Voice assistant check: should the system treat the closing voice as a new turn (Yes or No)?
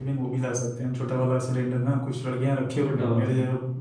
No